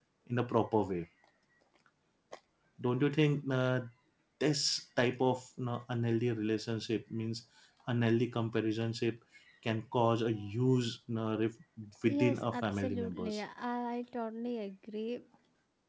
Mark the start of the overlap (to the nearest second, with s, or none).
12 s